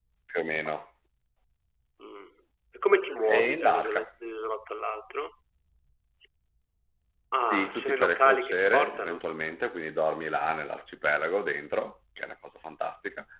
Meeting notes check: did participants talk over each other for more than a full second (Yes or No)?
Yes